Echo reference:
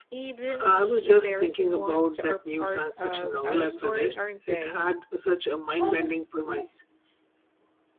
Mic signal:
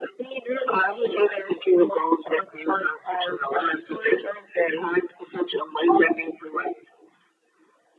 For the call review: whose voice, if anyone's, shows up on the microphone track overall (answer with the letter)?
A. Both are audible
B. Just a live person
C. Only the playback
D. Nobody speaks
C